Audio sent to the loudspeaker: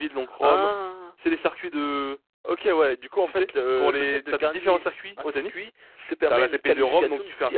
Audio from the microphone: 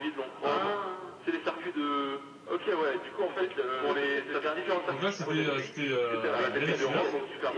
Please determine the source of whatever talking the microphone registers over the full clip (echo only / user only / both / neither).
both